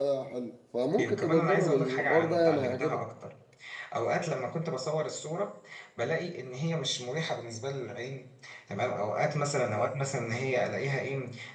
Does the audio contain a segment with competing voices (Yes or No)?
Yes